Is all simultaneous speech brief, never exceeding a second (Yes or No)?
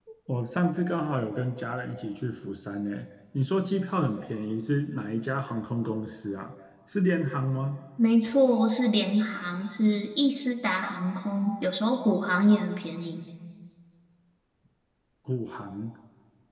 Yes